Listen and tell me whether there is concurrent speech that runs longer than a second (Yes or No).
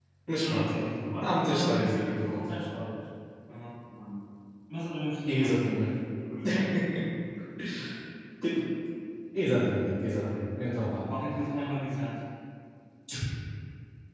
Yes